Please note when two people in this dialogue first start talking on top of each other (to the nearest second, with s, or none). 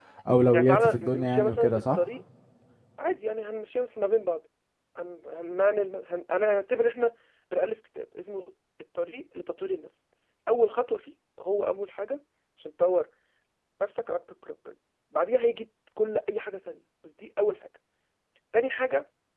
1 s